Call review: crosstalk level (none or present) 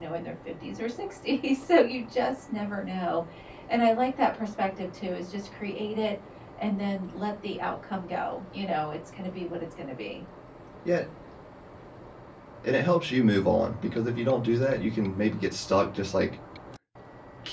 none